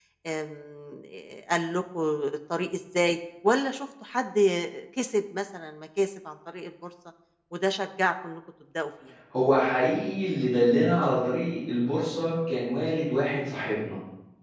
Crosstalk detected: No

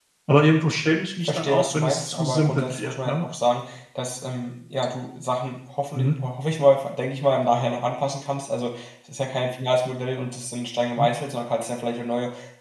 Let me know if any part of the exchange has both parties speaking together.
Yes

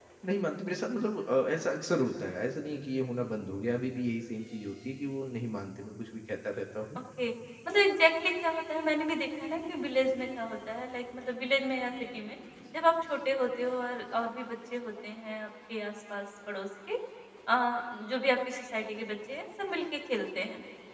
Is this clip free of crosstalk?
Yes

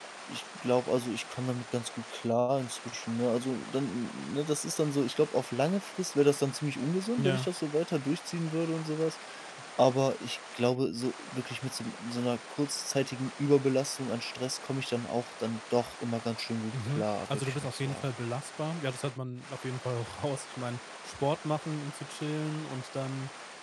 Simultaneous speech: Yes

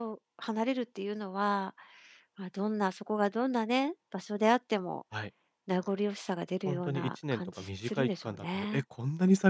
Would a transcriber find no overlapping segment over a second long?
No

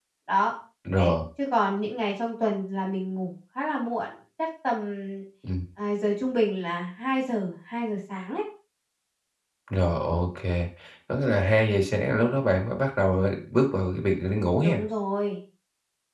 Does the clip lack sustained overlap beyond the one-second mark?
Yes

